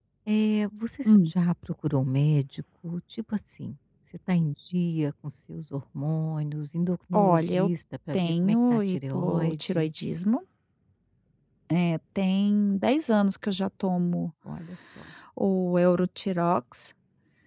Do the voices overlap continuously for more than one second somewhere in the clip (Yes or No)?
Yes